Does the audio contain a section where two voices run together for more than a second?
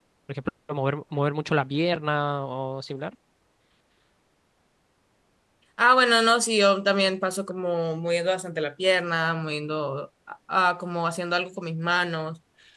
No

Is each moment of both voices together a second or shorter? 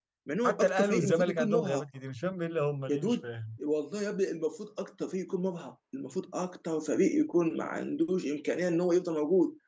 No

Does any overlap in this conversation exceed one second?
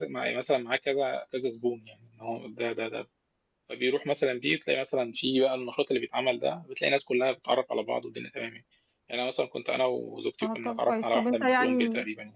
Yes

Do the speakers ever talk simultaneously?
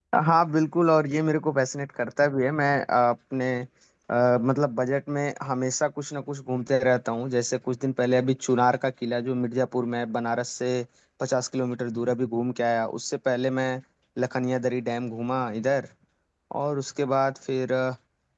No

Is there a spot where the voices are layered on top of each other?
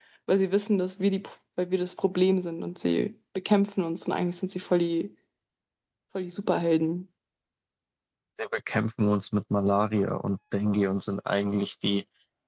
No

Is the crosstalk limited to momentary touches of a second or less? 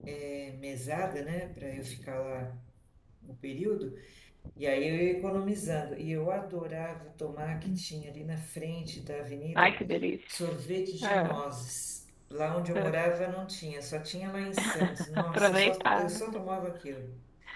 No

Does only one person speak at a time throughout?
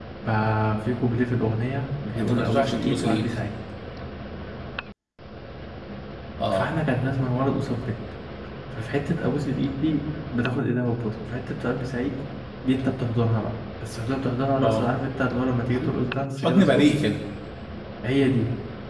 No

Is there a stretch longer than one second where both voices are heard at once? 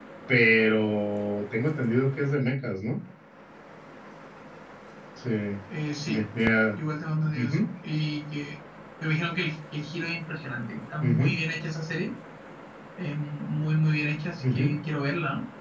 No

